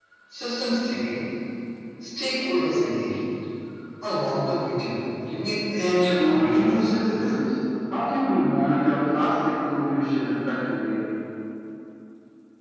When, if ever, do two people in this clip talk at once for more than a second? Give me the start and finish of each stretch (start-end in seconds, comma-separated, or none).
5.8-7.3